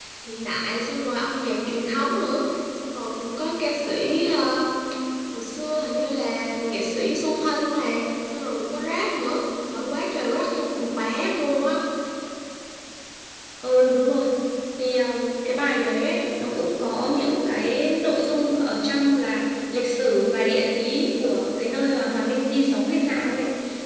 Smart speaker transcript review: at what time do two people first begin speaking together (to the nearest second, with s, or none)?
none